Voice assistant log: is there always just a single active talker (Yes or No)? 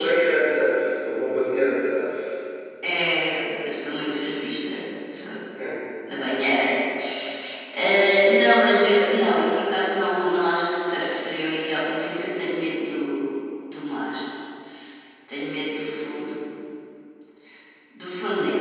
Yes